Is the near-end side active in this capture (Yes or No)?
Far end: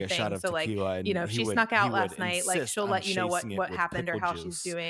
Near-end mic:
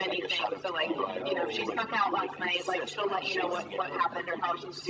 Yes